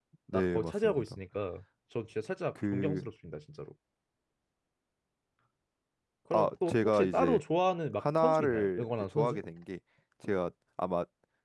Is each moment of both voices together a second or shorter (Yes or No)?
No